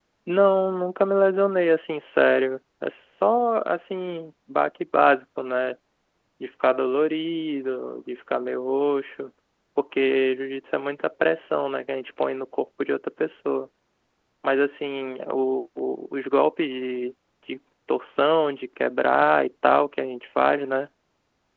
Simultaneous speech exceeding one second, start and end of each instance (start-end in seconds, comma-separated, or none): none